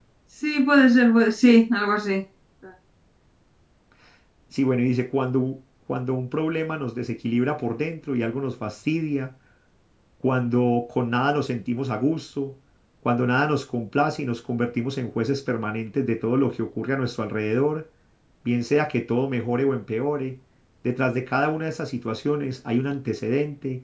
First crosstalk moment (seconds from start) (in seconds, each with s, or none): none